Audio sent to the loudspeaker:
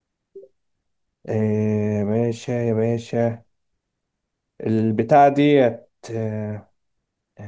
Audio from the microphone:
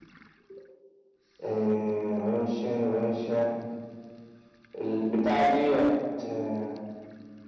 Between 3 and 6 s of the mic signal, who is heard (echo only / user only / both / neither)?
echo only